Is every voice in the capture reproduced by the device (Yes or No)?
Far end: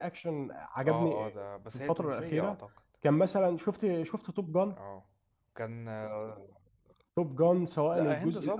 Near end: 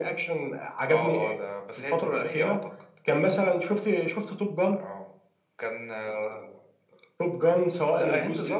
Yes